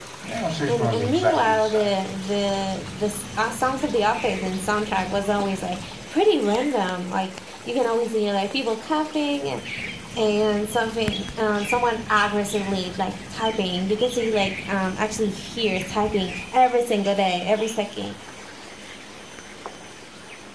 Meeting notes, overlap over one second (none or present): present